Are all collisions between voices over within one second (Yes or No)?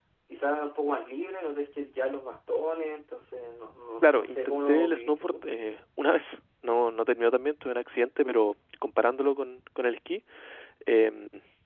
No